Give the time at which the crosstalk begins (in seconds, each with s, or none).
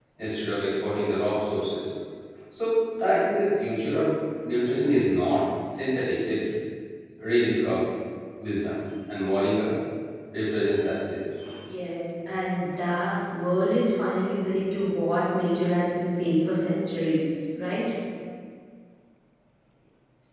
none